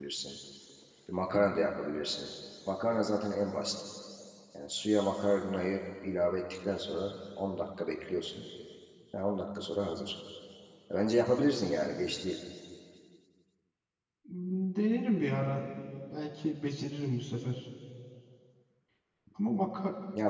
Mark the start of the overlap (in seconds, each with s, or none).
none